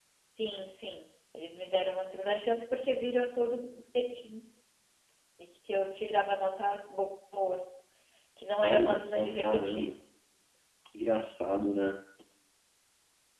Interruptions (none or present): present